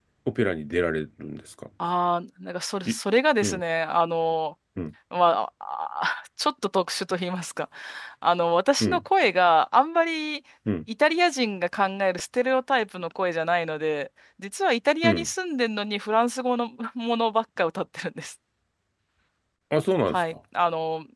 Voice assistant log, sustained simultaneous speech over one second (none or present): none